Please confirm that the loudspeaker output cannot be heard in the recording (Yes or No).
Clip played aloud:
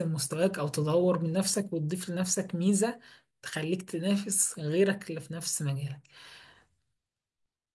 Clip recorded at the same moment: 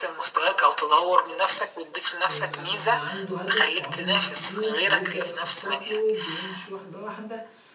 No